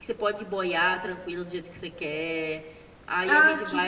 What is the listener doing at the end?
taking over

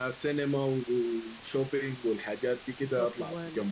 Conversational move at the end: taking over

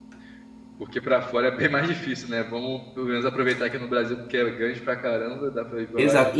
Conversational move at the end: taking over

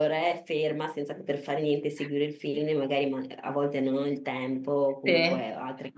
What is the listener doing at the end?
listening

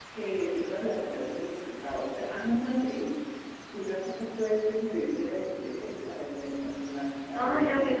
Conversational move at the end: taking over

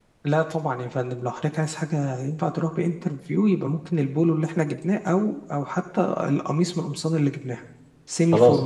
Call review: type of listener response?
taking over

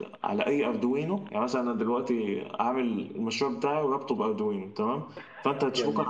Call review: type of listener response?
listening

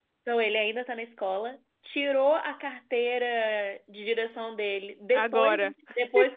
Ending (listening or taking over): listening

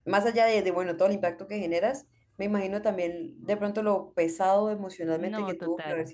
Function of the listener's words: listening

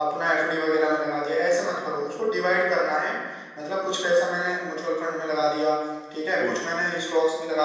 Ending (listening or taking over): listening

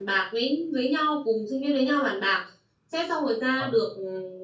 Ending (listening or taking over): listening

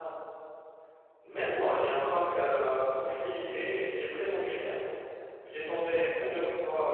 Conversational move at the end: listening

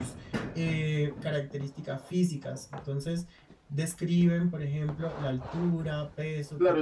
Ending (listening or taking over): taking over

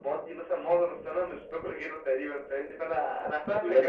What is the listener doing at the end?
taking over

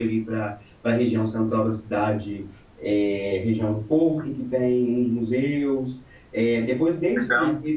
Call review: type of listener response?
listening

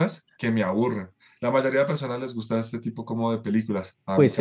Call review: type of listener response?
taking over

